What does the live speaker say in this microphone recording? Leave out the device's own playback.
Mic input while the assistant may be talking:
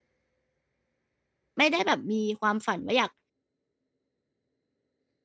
ไม่ได้แบบมีความฝันว่าอยาก

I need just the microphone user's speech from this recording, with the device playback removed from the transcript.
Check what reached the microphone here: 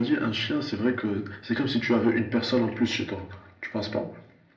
none

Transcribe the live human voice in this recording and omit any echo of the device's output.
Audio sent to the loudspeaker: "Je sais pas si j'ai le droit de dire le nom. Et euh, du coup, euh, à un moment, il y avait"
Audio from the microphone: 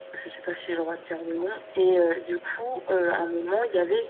none

